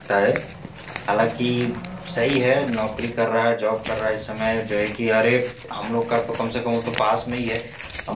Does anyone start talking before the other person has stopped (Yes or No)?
No